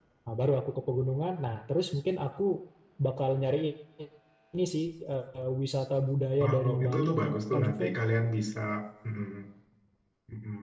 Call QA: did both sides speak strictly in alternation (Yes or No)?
No